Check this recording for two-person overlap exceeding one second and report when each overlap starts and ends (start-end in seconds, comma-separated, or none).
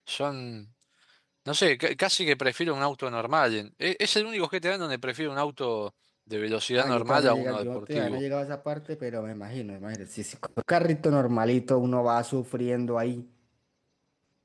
6.8-8.2